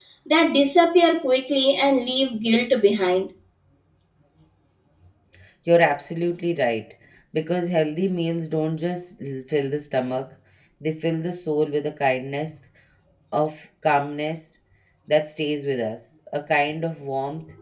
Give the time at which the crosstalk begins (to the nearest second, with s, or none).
none